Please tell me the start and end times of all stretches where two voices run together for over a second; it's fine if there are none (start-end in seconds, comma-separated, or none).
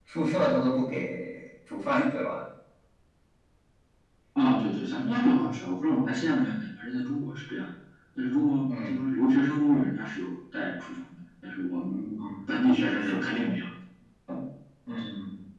none